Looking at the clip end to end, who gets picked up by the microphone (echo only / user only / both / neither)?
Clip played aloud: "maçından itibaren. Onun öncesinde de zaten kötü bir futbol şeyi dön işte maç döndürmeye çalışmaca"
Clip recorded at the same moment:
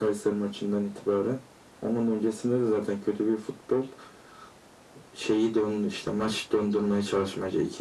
echo only